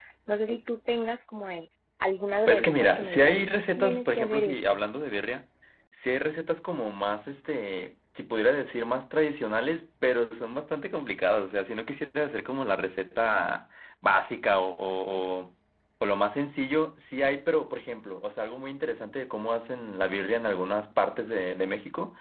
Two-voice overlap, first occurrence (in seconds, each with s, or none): 2.5 s